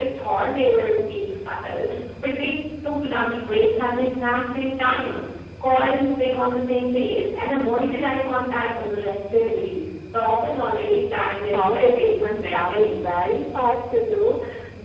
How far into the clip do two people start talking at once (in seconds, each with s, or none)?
11.5 s